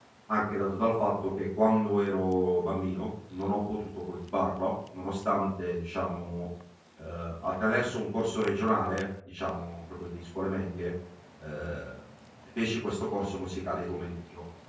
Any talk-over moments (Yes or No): No